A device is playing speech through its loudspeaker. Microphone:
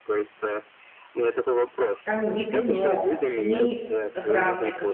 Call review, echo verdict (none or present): present